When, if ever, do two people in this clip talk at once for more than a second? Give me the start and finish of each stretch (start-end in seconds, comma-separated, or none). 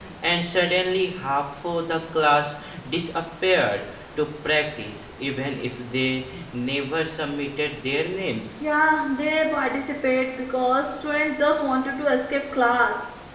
none